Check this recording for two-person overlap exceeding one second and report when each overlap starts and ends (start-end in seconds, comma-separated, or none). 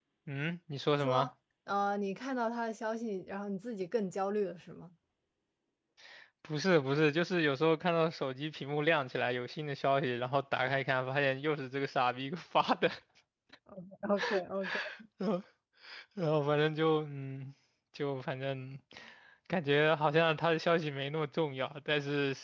none